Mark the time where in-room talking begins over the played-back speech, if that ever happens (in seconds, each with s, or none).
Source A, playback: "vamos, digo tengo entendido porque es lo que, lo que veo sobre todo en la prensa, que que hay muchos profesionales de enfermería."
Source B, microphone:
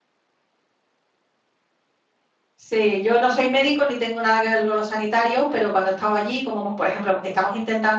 2.6 s